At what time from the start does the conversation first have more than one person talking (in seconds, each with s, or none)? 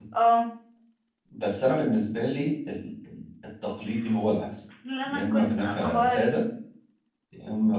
5.0 s